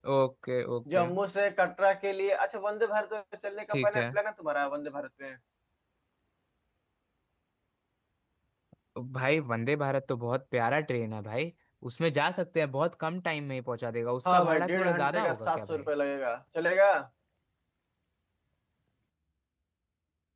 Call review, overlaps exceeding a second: present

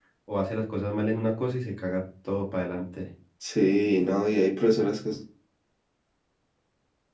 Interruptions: none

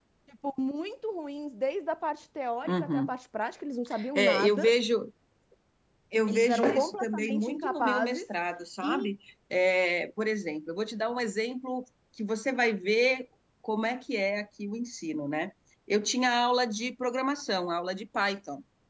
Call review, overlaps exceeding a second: present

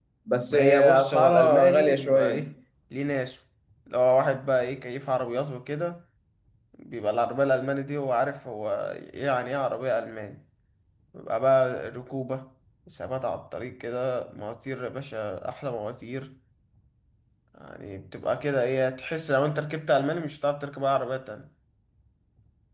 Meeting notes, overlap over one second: present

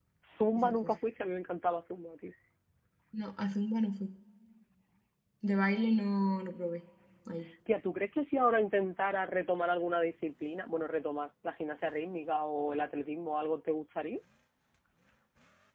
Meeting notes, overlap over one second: none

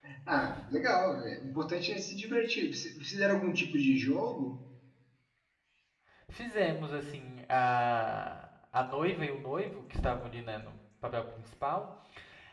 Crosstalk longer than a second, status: none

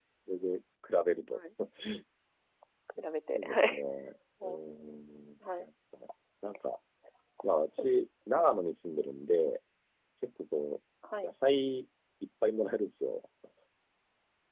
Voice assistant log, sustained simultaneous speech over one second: none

